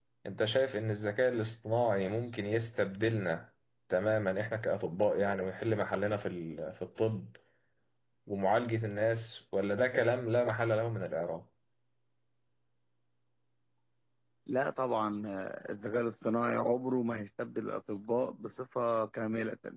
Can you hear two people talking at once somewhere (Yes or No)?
No